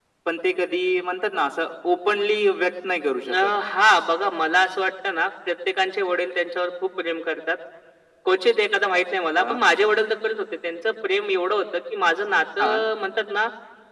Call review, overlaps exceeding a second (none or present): none